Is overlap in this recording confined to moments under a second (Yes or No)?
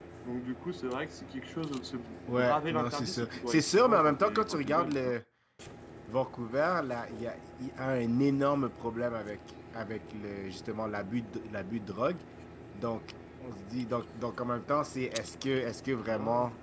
No